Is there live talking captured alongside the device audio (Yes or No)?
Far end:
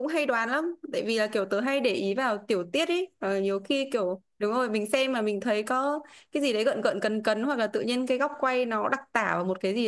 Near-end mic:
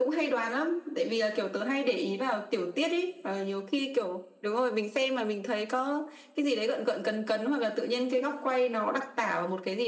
No